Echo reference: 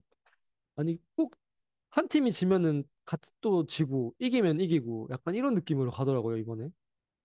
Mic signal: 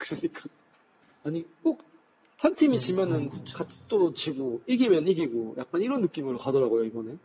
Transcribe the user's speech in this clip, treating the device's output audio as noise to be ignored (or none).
그래, 그건 그쵸.